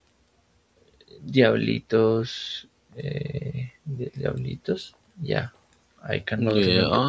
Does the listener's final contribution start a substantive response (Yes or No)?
Yes